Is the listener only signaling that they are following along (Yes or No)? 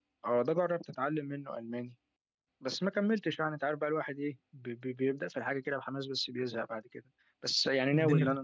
Yes